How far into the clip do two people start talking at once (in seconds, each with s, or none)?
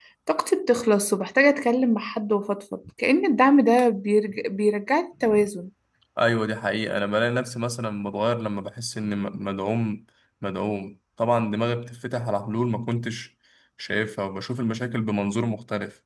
none